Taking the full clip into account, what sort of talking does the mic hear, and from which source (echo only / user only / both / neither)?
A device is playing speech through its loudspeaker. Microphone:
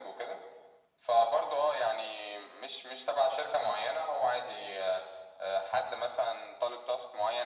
echo only